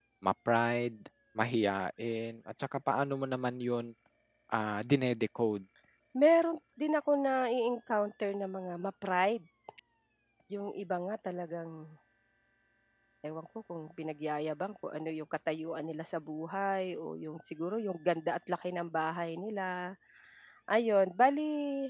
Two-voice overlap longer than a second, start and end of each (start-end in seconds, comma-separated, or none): none